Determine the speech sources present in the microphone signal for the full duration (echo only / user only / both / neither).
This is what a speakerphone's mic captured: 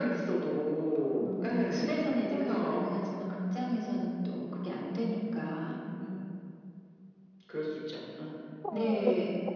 both